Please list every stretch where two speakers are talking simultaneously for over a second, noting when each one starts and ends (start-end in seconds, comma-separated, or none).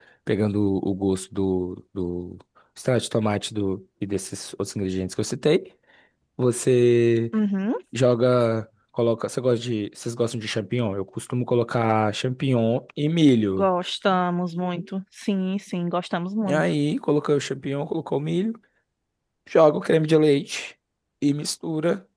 none